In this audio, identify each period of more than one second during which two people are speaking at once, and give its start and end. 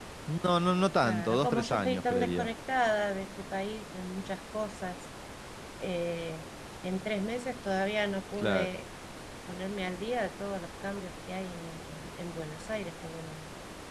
1.0-2.5

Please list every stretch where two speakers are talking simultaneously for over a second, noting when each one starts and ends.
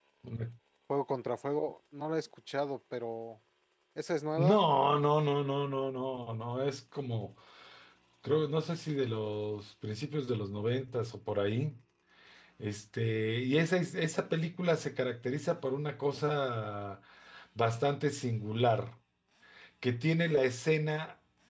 none

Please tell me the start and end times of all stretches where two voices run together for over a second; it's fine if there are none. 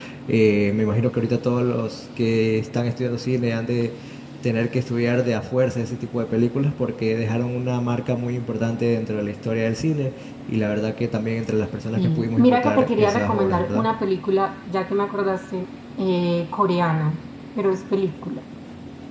11.9-13.9

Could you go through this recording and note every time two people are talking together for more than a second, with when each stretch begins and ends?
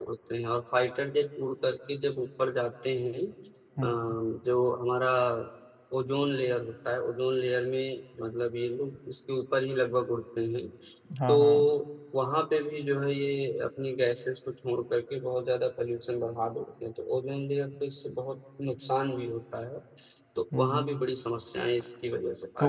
none

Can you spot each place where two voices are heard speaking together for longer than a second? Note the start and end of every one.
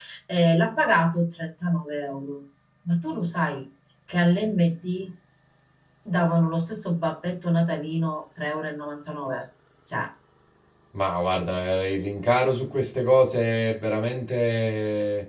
none

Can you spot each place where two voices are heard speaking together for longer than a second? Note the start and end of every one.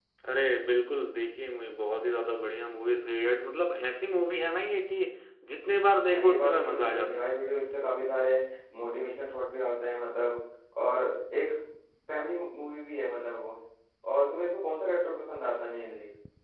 6.1-7.3

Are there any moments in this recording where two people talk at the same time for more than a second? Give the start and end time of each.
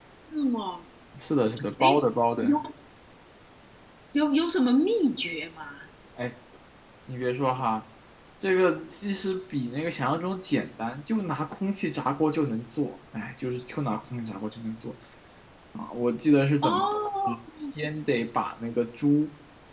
none

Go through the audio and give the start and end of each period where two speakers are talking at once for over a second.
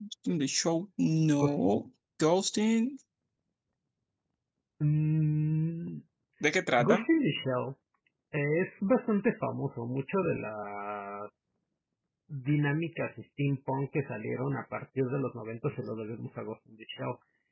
none

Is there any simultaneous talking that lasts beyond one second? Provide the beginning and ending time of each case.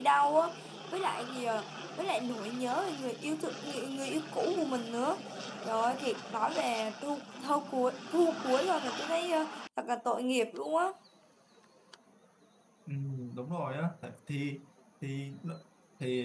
none

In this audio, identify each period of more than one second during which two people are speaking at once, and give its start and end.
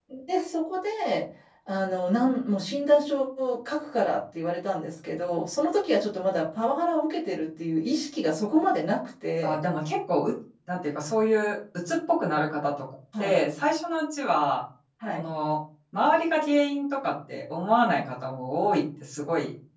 none

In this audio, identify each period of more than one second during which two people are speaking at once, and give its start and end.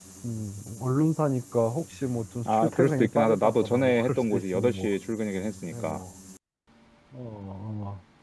2.4-4.9

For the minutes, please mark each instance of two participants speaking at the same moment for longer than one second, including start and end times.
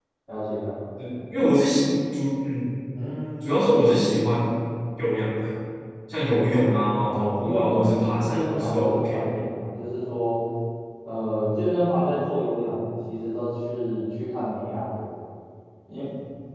7.0-9.3

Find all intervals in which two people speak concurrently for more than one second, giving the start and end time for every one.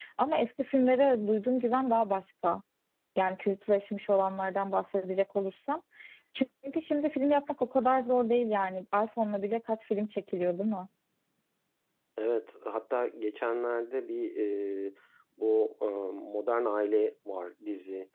none

